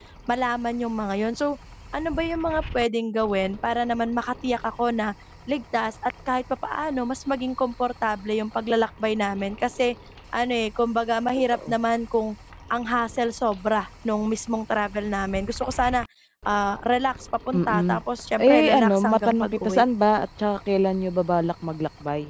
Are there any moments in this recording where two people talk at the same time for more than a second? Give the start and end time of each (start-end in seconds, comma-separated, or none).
18.5-19.8